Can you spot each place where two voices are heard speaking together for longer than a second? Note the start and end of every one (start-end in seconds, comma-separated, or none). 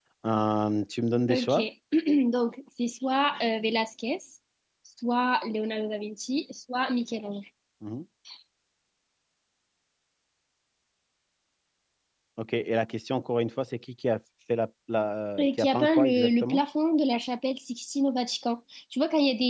15.4-16.6